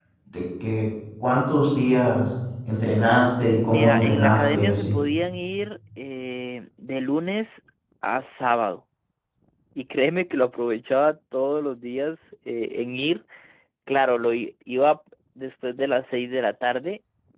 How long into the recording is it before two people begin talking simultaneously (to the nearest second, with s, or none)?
4 s